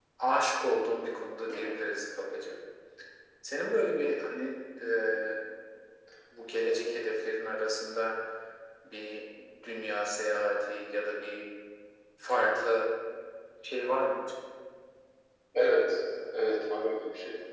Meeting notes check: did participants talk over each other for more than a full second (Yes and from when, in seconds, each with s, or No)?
No